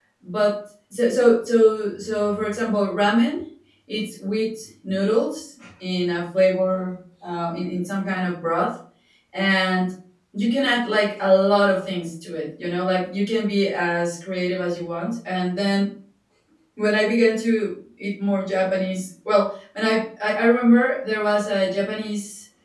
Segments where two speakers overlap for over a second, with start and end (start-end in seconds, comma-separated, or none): none